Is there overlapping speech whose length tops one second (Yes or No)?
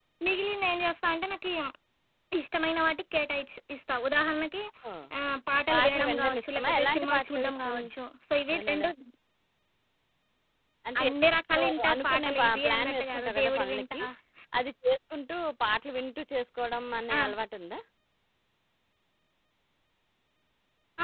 Yes